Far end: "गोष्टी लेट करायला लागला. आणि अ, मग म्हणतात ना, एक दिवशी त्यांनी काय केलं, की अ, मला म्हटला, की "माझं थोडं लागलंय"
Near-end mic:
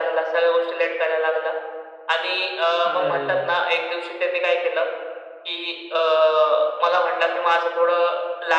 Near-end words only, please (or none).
अरे!